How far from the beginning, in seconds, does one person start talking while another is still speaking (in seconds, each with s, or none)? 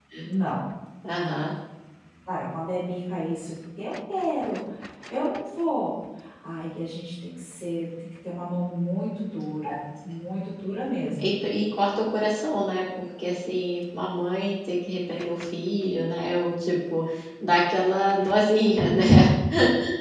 none